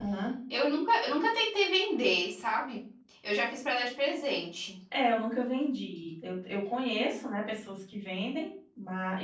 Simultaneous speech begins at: none

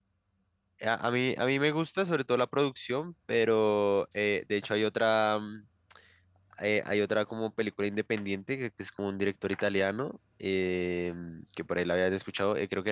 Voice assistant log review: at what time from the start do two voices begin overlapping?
none

